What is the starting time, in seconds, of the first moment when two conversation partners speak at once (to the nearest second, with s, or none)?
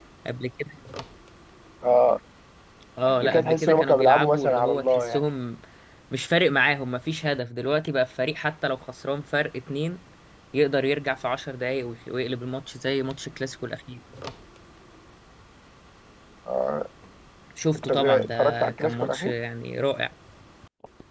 3 s